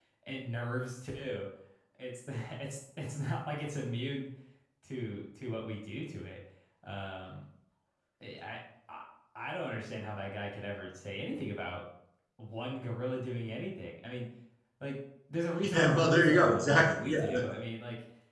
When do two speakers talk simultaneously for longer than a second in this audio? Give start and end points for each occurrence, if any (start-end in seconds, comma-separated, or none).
15.7-17.2